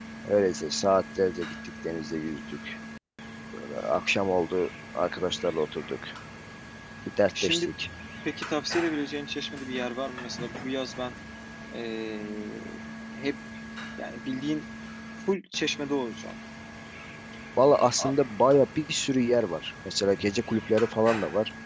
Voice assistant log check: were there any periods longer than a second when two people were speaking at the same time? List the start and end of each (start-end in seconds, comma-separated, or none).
none